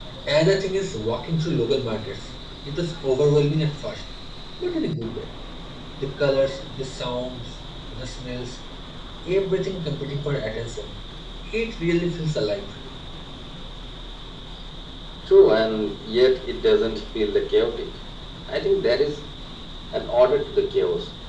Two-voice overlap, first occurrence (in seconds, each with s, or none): none